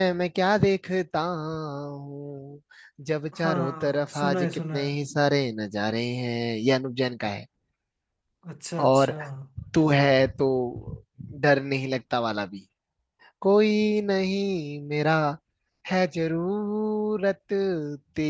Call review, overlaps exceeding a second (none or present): present